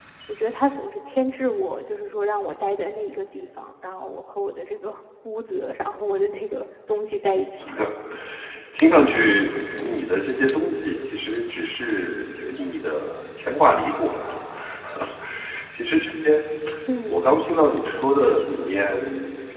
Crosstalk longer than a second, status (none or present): none